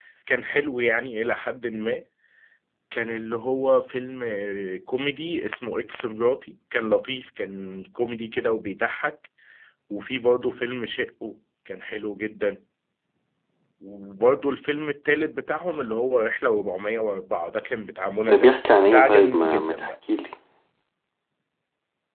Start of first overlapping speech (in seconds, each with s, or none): 18.3 s